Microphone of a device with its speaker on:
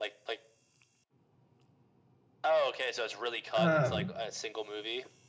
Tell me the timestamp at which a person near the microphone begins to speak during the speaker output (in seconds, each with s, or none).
3.5 s